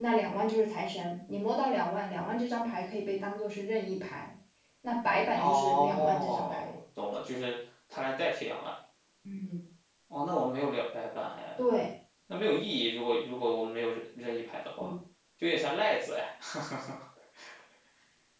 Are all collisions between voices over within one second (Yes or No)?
No